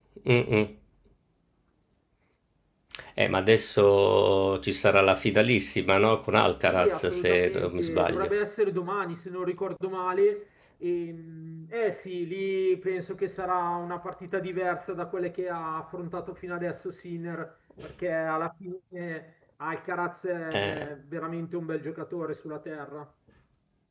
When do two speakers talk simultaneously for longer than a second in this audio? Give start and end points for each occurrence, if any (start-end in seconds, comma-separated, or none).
6.7-8.3